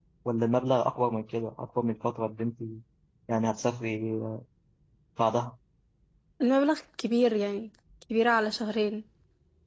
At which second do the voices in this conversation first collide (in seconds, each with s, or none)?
none